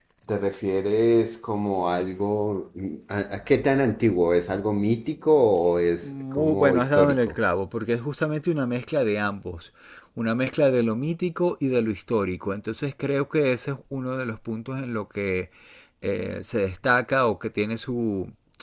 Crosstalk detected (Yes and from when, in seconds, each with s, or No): Yes, from 6.0 s